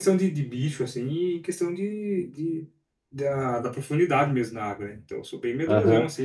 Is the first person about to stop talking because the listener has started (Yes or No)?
Yes